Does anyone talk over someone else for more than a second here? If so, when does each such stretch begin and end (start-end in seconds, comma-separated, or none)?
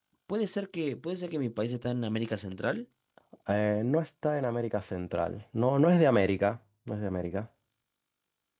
none